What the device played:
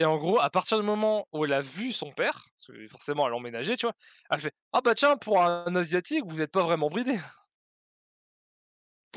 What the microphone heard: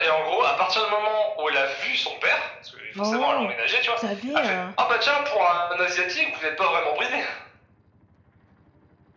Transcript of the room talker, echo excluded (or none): oh, vous savez, heu,